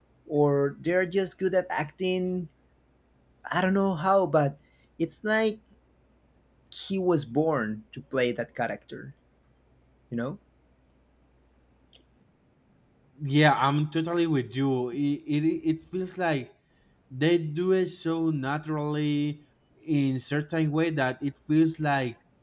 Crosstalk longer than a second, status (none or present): none